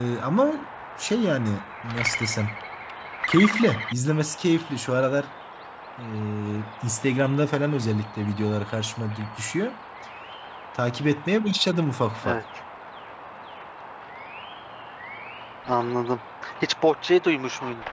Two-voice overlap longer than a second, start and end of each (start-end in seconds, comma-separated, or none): none